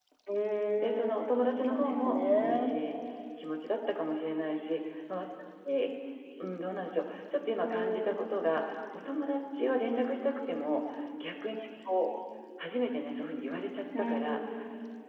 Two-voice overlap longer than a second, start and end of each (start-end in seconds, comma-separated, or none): 0.8-2.7